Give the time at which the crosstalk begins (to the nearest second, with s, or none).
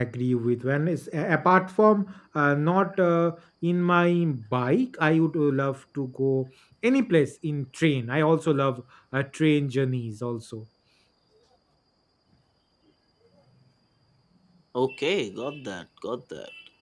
none